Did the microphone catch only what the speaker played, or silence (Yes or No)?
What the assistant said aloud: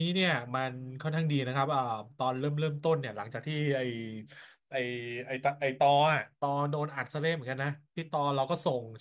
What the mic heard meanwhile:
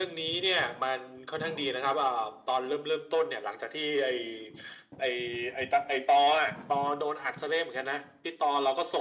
Yes